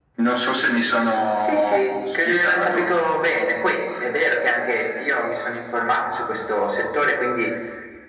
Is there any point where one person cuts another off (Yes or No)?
Yes